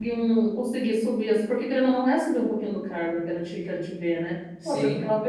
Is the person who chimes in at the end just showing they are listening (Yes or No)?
Yes